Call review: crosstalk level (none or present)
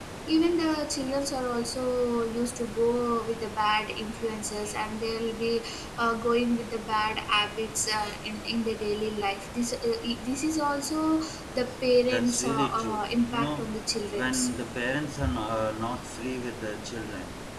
present